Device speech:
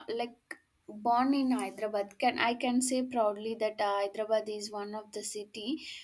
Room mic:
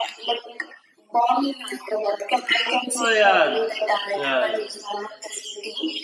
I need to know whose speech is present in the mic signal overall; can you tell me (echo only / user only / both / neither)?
both